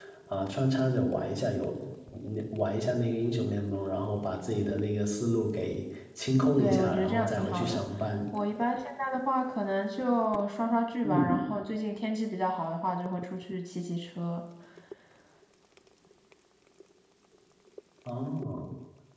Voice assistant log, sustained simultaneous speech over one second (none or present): present